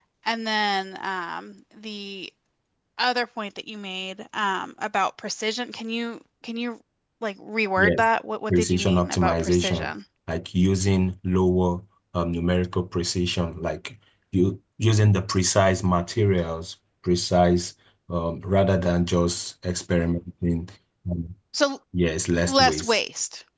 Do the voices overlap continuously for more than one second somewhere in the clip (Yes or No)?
Yes